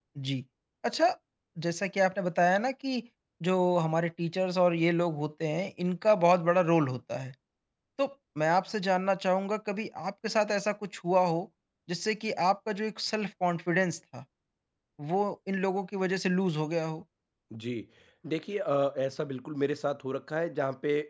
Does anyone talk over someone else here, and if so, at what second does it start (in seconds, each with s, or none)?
none